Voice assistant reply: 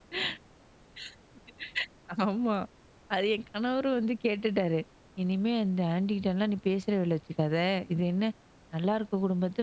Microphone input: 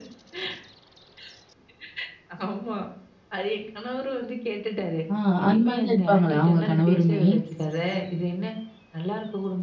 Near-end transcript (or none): ஆ, அந்த மாரி தான் இருப்பாங்களா உங்க கணவருமே?